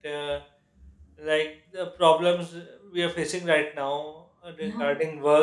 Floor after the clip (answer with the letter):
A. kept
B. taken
A